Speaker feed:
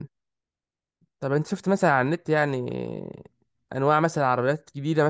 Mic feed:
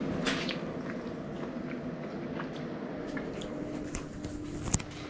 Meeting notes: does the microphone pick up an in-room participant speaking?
No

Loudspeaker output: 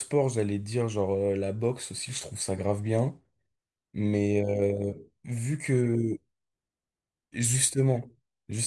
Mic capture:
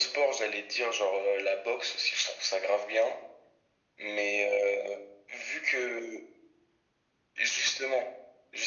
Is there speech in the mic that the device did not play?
No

